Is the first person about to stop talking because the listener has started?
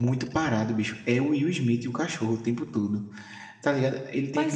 Yes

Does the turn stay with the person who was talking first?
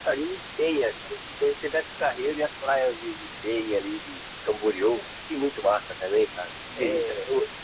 Yes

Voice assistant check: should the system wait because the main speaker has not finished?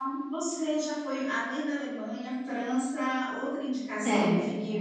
Yes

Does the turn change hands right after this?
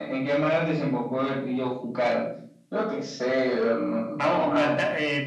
Yes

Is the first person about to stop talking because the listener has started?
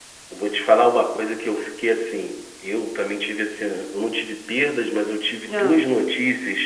No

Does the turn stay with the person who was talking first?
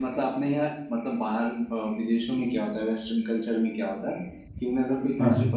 Yes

